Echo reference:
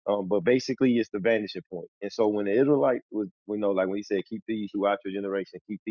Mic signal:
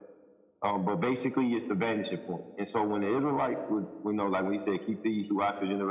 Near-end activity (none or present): none